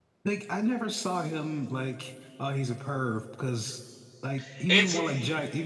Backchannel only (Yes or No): Yes